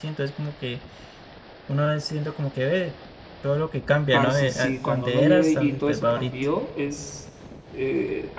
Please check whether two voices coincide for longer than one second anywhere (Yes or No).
Yes